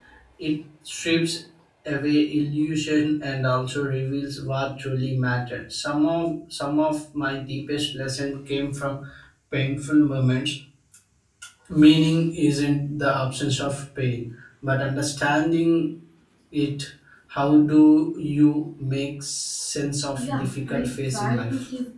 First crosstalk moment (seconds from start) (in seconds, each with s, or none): 20.2 s